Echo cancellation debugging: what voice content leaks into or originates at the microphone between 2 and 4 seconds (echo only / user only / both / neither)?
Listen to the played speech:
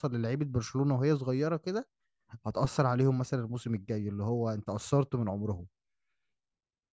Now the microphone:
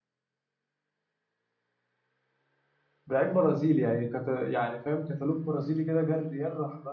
user only